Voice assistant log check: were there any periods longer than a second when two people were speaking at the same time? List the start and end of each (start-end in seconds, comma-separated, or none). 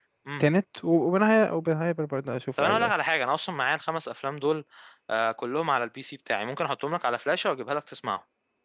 none